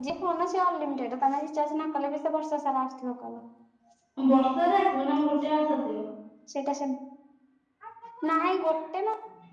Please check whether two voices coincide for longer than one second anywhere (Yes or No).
No